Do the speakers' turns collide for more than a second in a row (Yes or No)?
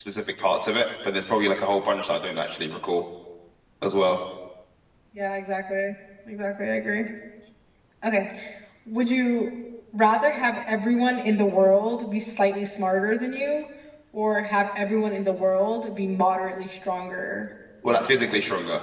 No